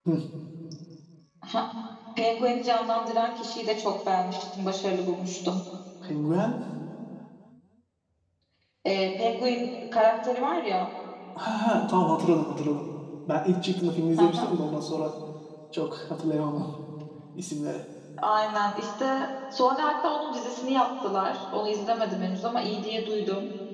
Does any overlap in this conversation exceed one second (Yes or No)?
No